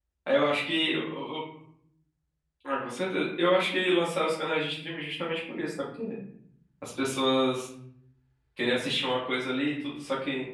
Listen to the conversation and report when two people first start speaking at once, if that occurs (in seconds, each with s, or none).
none